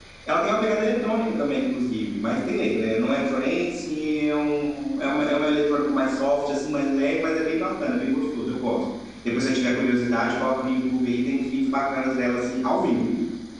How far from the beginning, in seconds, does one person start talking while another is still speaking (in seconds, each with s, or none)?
none